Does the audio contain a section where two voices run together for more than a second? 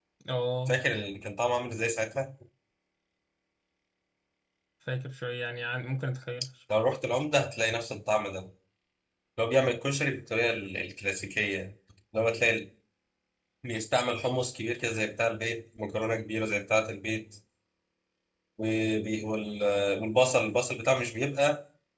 No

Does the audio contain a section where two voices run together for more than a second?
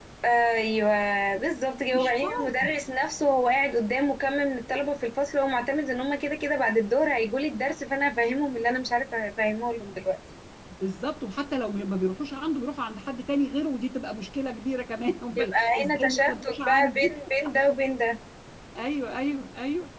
Yes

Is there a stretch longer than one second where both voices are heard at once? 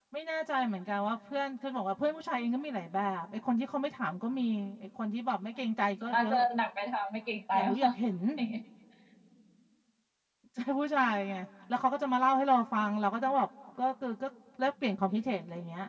No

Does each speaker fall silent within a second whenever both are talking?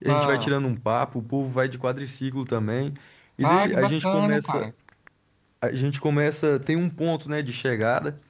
No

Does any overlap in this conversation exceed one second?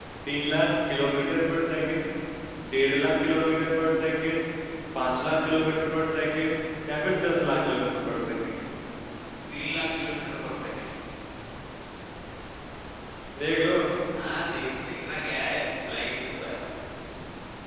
No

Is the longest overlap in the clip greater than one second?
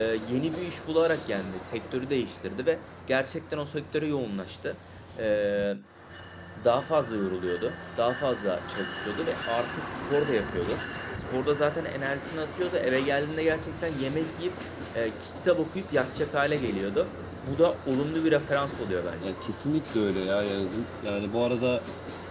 No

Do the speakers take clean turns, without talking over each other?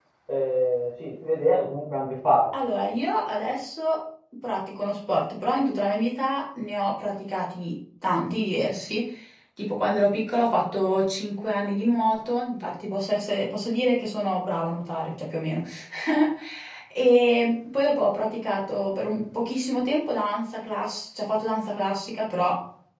Yes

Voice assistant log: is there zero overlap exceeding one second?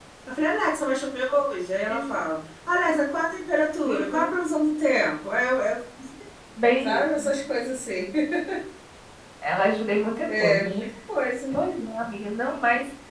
Yes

